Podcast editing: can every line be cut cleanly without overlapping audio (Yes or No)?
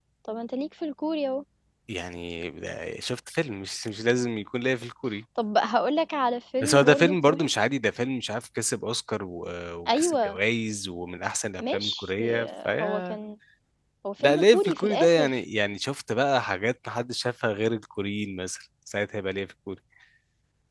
No